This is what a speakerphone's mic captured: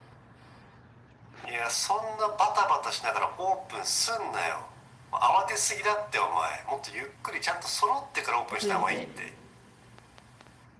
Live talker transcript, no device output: 遅れてて。

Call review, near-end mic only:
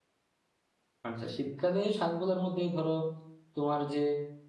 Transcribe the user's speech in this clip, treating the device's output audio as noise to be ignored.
আচ্ছা শীতকালে শাকগুলোর মধ্যে ধরো তোমার যে

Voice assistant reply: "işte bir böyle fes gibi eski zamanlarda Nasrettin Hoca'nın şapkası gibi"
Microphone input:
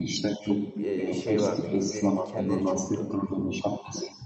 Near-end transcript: çok e, şey vardı. Güllerin dikenleri çoktu.

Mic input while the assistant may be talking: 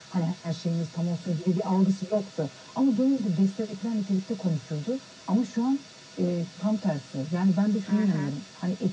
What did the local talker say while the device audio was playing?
hı hı.

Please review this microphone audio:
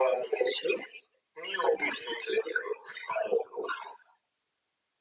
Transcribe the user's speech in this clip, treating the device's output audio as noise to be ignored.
none

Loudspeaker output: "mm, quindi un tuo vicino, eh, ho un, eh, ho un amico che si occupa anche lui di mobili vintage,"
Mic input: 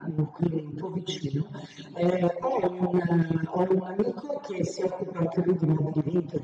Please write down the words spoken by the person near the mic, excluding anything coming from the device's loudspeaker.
none

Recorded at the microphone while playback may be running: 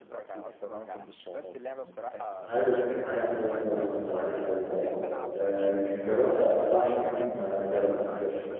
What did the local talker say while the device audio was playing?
عارف عارف طبعا فالورانت وعارف لول اه آه، يمكن جربت العب فيهم فالورانت

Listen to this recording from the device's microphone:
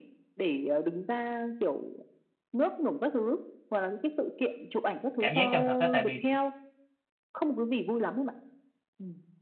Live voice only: cảm giác chân thực á tại vì

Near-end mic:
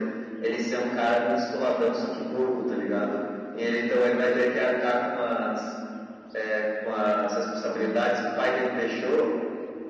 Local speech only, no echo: none

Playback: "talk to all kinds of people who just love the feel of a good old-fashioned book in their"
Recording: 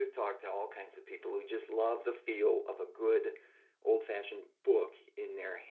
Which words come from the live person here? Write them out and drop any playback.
none

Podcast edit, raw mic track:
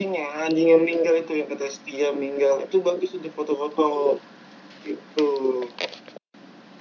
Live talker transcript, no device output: none

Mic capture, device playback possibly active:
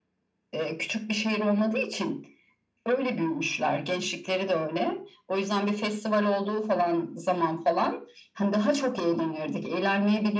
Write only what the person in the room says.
none

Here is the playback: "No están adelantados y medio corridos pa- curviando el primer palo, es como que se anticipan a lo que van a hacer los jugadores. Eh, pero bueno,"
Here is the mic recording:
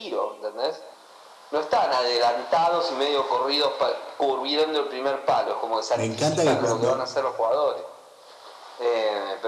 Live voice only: Me encanta que cuando

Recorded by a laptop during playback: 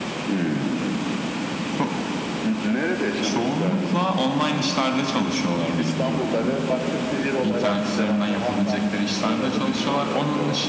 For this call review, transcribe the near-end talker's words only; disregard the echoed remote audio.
none

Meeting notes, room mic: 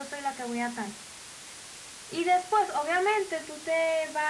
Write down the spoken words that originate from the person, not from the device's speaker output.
none

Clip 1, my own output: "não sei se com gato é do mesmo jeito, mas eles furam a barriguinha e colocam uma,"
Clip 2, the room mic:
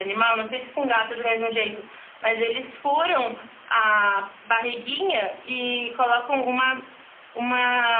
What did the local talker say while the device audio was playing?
none

